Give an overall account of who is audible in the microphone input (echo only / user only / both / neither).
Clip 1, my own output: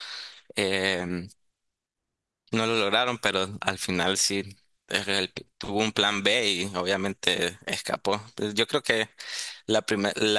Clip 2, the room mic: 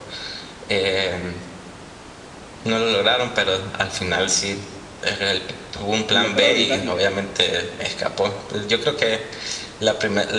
both